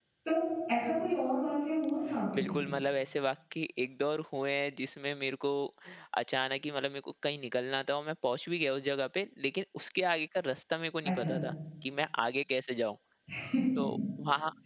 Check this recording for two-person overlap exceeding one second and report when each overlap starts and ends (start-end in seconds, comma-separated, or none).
none